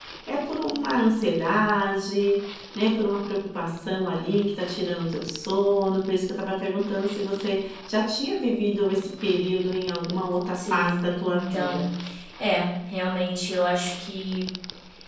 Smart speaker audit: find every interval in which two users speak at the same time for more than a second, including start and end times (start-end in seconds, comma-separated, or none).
10.6-11.8